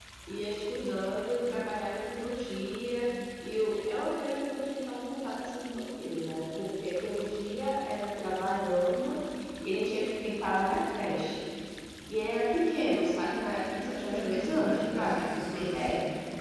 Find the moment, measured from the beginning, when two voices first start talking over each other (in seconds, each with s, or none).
13.8 s